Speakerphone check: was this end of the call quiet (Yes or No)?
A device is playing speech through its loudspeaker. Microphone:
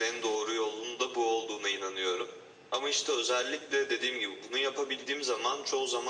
Yes